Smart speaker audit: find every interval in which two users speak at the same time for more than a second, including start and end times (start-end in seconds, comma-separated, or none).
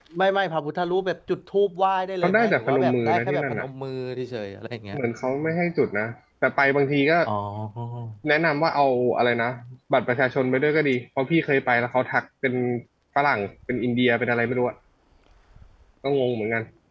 2.2-3.6